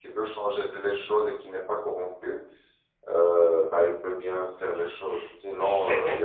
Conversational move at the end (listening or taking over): listening